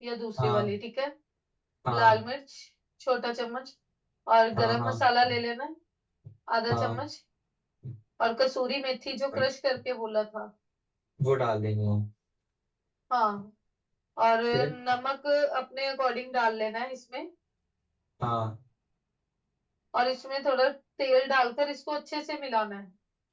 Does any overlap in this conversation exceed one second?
No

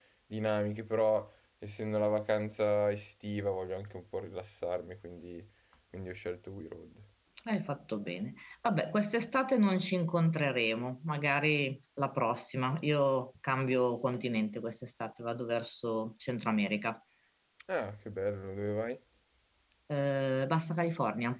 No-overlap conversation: Yes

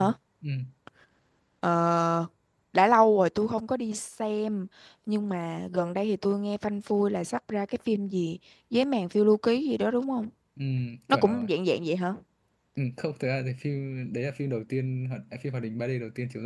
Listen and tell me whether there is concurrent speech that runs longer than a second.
No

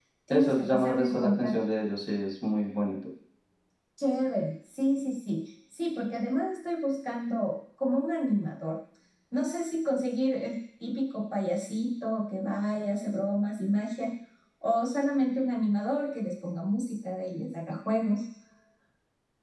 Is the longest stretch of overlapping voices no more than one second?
No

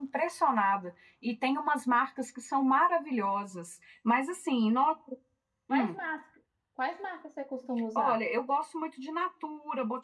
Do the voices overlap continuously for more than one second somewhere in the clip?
No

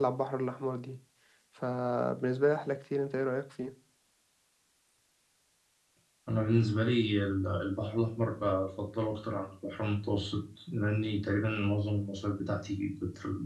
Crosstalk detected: No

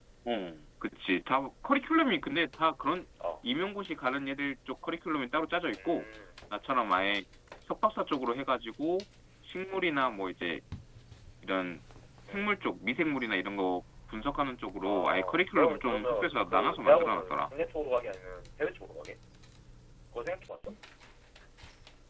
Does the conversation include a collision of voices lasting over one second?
Yes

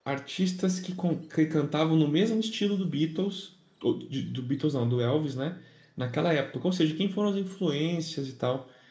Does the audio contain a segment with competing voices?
No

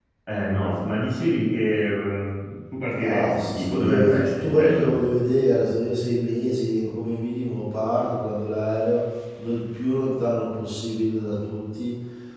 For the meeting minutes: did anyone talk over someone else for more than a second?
Yes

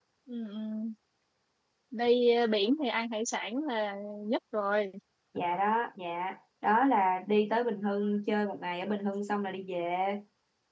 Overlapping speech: No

